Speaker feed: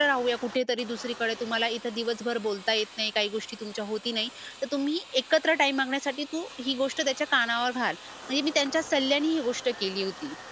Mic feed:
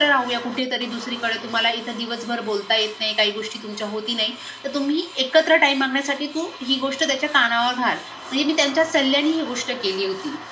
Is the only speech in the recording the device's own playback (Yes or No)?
Yes